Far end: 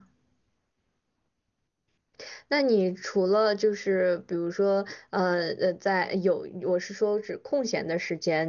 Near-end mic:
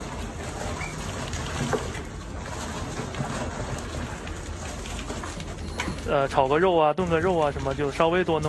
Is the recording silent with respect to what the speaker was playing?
Yes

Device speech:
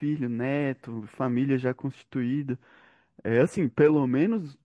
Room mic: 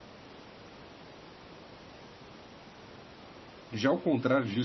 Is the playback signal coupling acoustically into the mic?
No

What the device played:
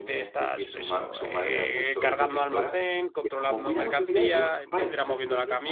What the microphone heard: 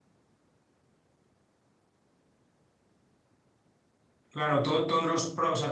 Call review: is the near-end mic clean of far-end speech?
Yes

